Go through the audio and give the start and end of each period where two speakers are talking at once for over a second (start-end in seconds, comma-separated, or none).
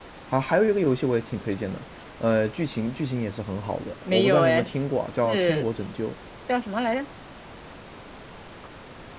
4.0-5.7